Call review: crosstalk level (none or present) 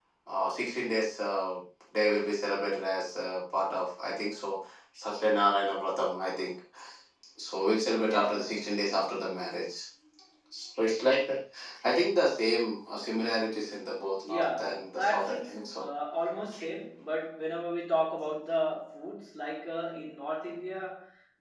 present